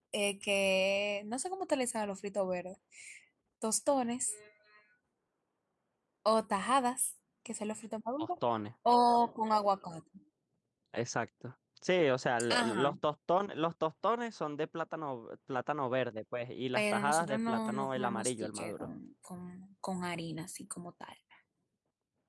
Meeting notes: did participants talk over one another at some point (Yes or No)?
Yes